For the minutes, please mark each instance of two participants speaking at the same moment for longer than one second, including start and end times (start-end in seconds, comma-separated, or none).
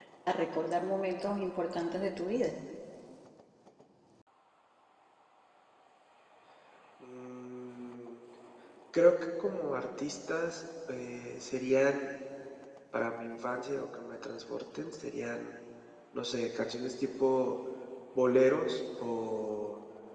none